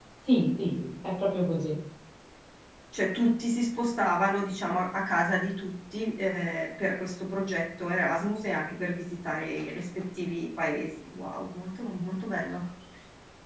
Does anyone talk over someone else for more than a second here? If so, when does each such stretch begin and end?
none

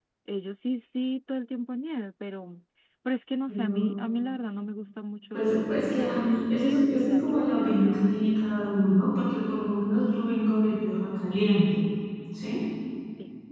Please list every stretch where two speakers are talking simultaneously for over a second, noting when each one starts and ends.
5.3-8.3

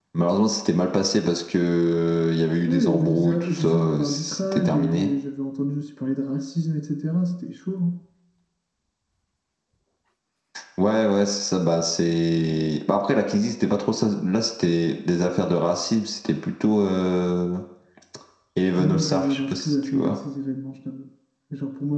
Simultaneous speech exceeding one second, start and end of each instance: 2.6-5.1, 18.8-20.2

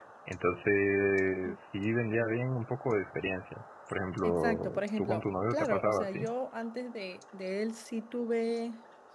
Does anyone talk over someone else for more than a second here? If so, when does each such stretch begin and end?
4.2-6.3

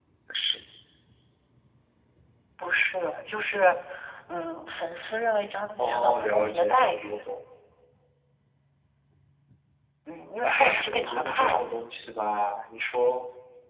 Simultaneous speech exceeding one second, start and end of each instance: 5.8-7.3, 10.4-11.8

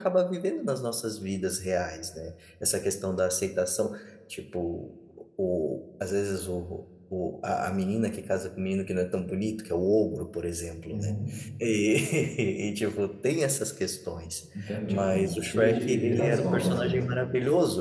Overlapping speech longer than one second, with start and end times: 14.9-17.0

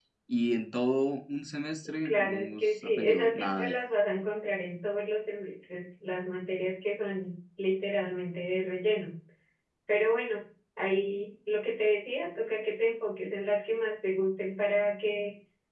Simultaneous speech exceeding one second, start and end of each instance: 2.0-3.7

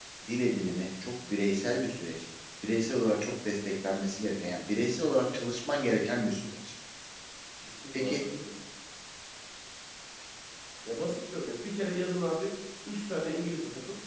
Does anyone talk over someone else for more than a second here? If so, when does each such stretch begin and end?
none

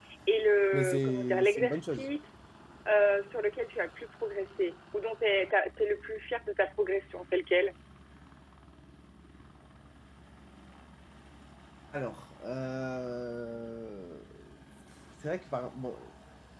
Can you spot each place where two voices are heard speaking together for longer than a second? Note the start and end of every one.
0.7-2.1

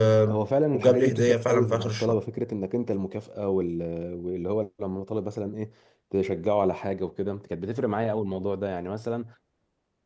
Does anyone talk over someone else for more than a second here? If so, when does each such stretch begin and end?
0.7-2.2

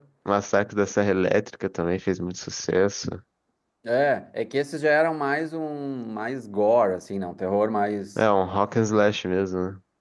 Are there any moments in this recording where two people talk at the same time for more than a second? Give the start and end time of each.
none

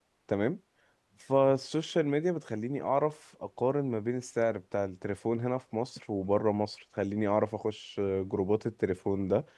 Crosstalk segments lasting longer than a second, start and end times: none

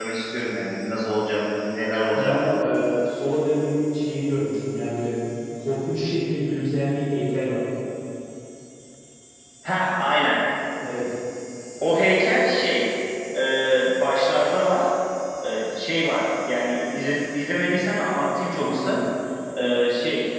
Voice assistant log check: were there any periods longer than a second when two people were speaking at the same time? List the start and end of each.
none

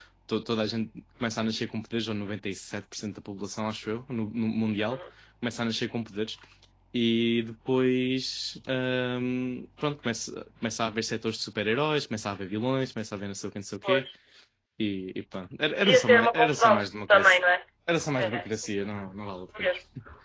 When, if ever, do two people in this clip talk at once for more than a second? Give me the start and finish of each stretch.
15.8-17.4

